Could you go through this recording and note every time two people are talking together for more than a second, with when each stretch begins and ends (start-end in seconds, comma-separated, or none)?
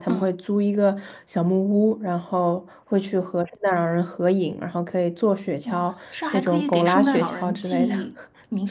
6.3-7.9